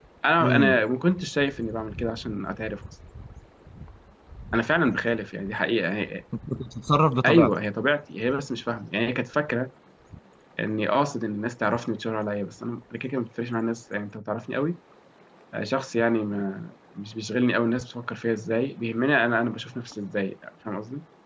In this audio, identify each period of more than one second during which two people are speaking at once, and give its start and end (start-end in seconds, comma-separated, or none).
none